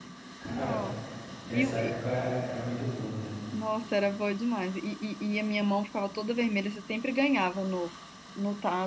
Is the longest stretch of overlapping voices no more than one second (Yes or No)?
Yes